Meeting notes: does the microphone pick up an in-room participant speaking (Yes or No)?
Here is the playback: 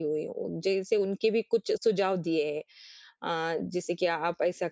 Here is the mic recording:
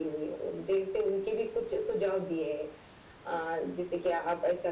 No